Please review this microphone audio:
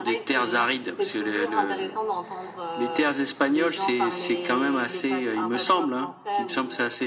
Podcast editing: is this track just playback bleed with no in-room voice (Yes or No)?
No